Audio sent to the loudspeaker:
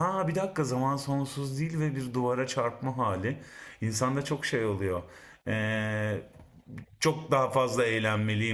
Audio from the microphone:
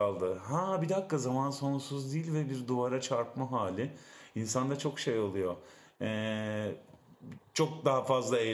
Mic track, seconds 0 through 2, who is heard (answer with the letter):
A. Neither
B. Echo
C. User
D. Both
B